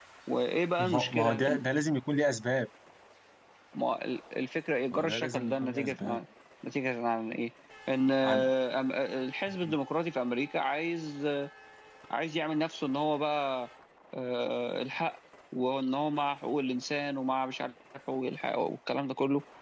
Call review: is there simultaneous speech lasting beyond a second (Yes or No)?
Yes